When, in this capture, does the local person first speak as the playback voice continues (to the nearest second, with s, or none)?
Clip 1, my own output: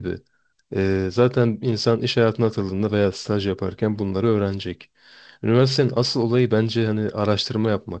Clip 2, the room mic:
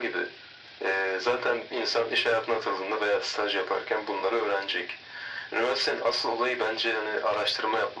none